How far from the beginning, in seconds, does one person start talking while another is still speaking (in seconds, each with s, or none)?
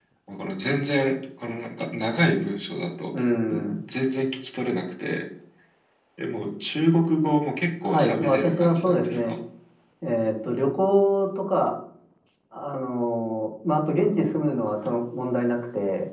7.8 s